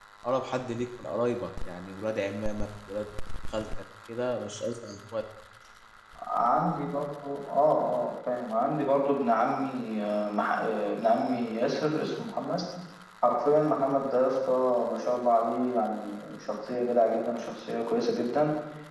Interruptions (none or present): none